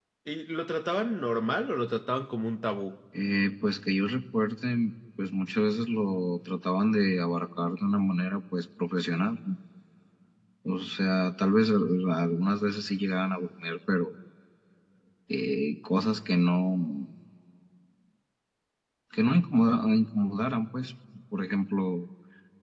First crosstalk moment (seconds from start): none

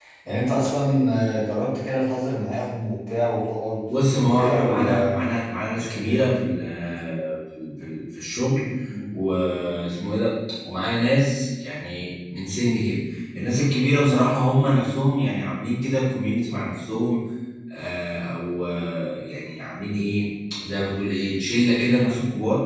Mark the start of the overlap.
3.9 s

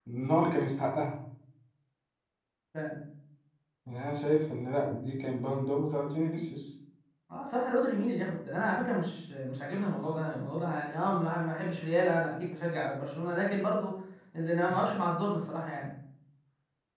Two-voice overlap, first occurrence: none

